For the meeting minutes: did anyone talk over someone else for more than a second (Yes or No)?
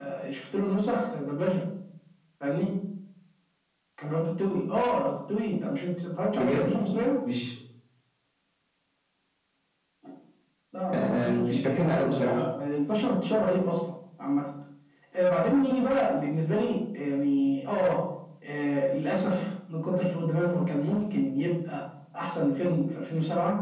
Yes